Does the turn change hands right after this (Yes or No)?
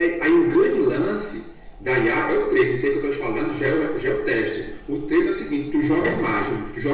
No